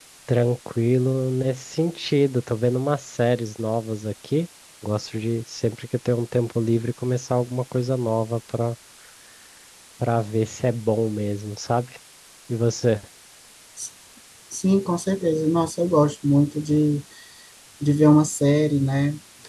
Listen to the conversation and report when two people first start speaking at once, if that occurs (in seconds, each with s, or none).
none